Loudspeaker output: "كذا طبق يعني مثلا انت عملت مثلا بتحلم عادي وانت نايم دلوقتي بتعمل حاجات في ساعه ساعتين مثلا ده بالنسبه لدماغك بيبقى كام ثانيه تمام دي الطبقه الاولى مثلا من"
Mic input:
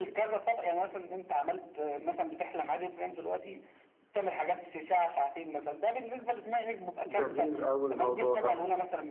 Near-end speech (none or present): present